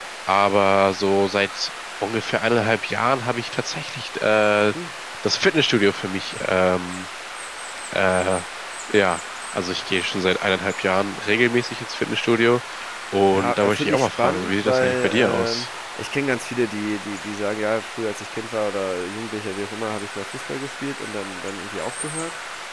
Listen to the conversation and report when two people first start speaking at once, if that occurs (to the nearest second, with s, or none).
13 s